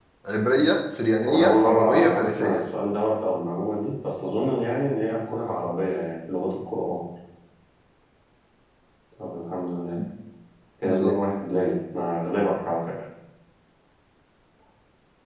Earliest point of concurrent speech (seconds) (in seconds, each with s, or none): 1.3 s